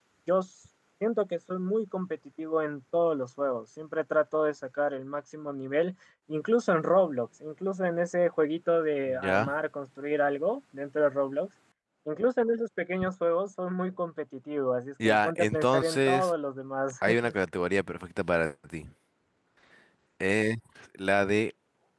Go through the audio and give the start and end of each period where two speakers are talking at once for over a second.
15.0-16.3

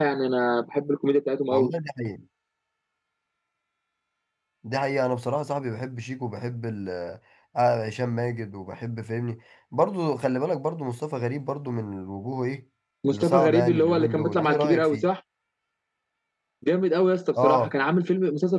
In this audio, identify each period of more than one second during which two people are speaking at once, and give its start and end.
13.1-15.1

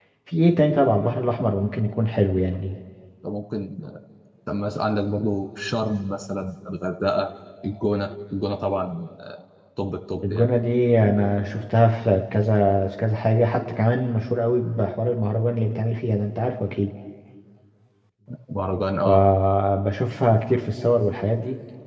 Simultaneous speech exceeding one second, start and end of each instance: none

